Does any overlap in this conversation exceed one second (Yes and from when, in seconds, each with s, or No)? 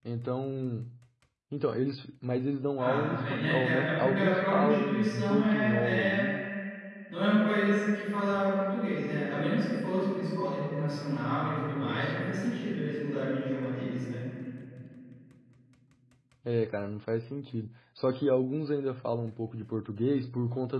Yes, from 2.8 s